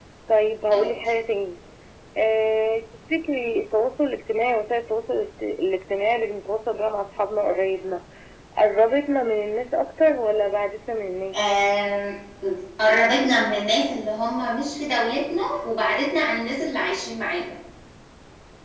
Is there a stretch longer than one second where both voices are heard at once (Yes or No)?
No